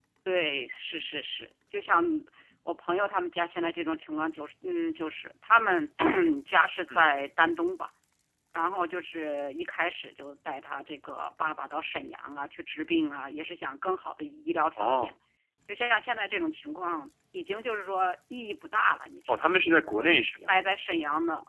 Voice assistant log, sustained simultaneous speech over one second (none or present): none